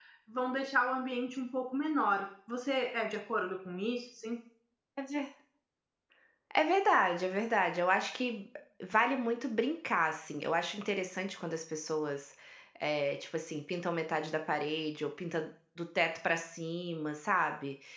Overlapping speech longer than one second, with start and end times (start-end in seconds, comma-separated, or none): none